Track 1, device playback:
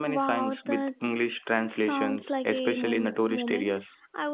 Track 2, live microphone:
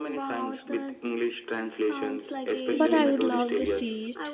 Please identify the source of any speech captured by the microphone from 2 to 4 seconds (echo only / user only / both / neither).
both